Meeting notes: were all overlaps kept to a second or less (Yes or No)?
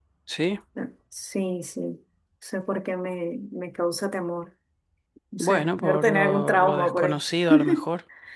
No